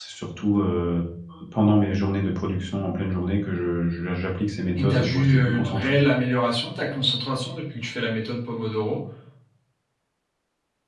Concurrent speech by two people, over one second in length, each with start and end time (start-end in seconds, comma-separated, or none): 4.8-6.0